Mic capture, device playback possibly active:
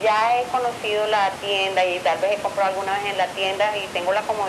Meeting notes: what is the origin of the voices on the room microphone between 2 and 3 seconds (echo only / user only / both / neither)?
echo only